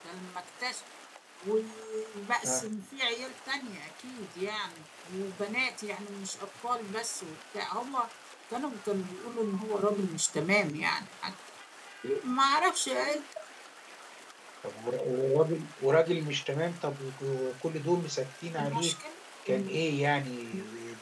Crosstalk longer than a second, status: none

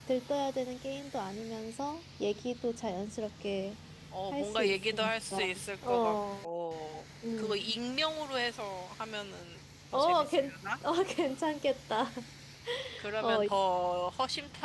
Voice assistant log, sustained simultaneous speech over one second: present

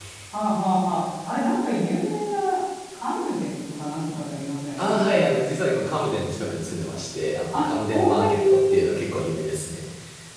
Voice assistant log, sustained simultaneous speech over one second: present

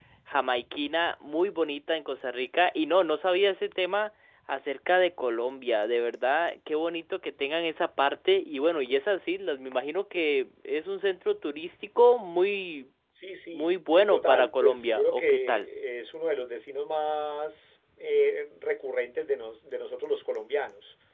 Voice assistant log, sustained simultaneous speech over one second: present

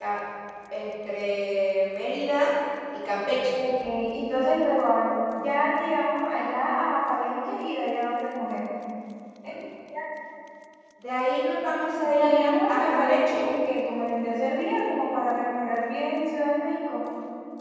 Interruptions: present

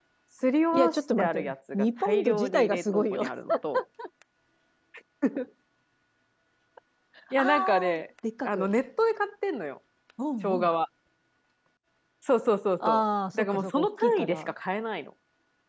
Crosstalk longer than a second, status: present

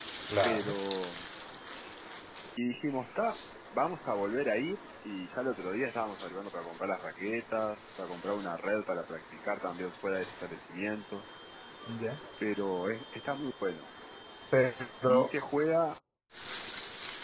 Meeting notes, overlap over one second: none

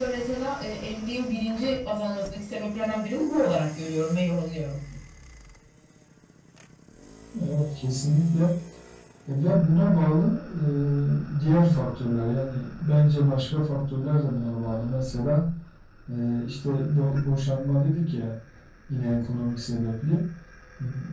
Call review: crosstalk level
none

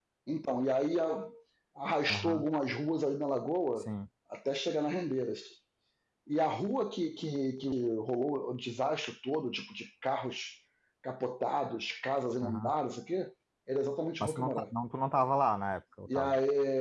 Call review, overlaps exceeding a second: none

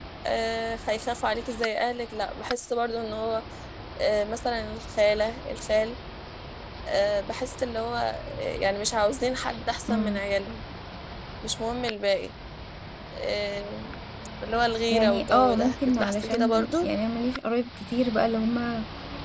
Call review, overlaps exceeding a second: present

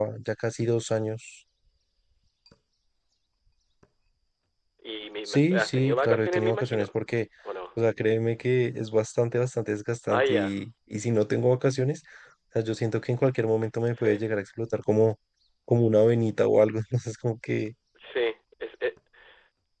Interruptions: present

